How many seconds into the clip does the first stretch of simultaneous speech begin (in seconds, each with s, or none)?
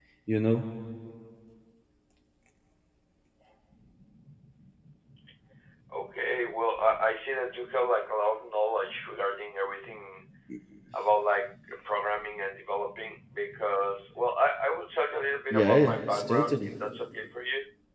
15.5 s